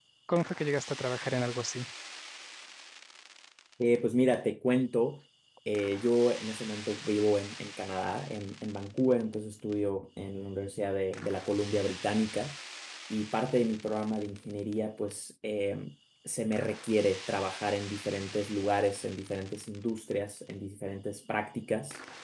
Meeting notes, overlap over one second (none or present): none